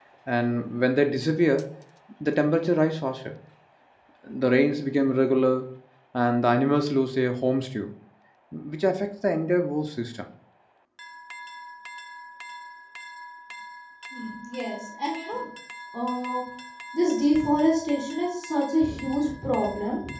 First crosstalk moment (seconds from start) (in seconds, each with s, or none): none